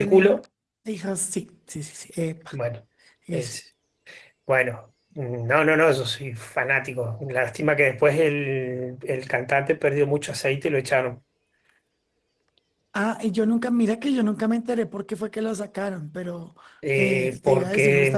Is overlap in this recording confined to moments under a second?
No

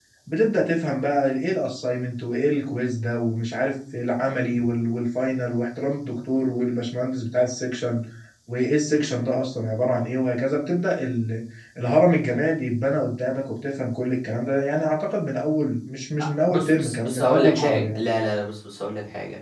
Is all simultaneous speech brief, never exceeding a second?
No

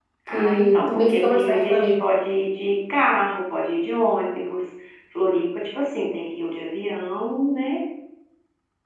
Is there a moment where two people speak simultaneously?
Yes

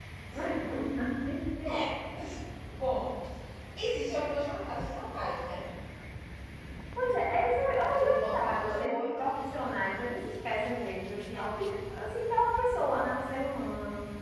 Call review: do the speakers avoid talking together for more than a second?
No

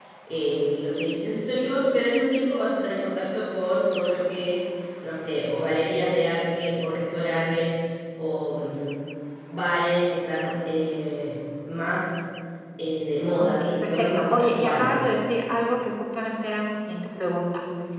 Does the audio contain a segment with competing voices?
Yes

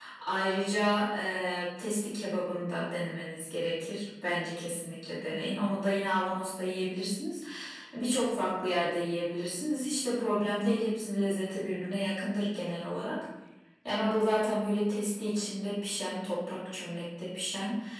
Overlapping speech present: No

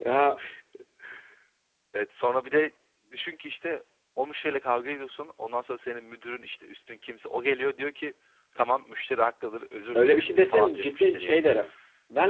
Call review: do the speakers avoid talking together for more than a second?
No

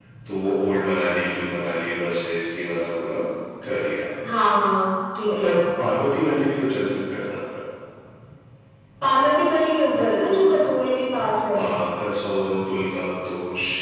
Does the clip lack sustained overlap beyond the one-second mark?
Yes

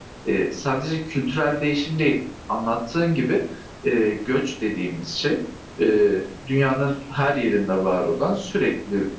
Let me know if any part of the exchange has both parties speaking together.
No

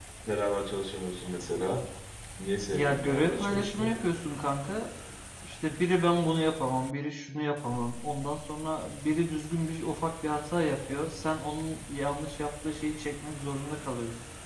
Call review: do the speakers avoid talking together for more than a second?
No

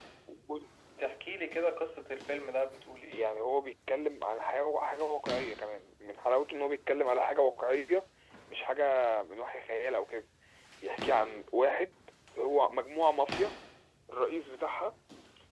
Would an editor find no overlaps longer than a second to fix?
Yes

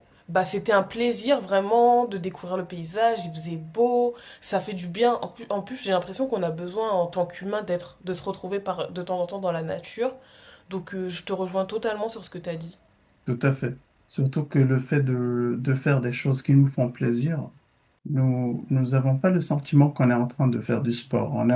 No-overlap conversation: Yes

